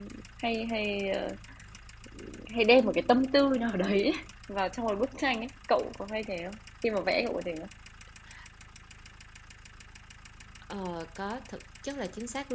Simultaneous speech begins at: none

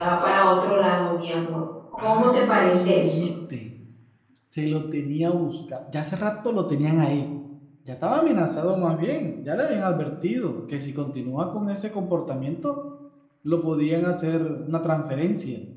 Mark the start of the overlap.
2.0 s

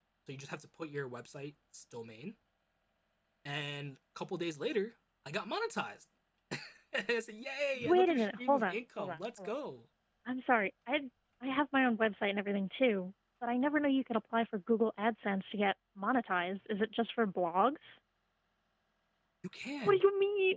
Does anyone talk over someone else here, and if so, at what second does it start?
7.8 s

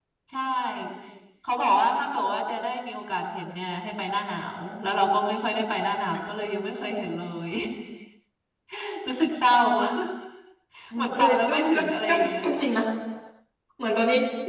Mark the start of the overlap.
11.0 s

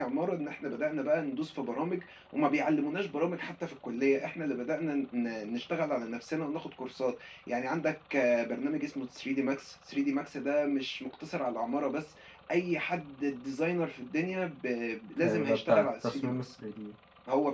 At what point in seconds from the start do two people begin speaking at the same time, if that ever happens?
15.2 s

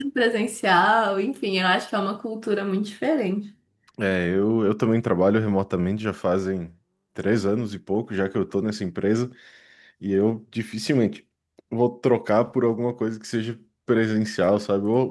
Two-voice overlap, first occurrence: none

